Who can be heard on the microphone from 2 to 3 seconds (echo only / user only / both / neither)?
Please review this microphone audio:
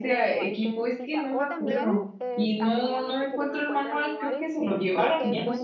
both